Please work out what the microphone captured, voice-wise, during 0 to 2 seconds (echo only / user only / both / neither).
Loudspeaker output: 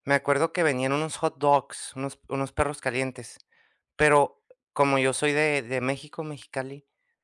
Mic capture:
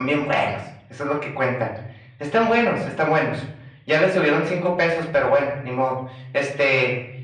user only